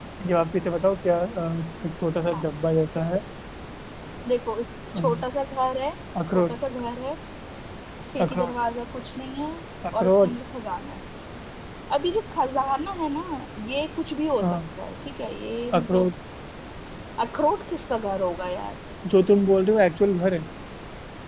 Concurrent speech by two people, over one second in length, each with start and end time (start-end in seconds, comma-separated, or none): none